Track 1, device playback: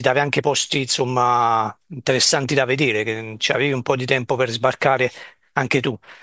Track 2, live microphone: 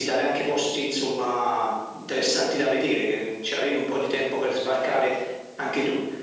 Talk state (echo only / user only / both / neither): echo only